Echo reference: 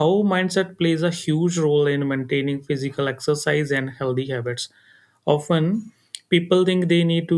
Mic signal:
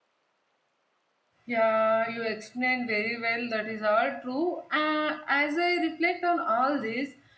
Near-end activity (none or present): present